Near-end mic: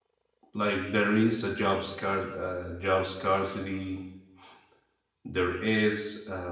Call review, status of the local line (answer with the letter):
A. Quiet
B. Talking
B